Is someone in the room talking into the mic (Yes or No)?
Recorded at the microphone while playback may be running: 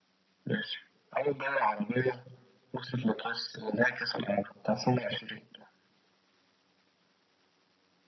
No